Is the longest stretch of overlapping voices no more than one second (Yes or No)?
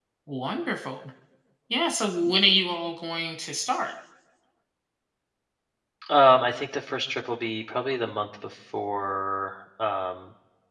Yes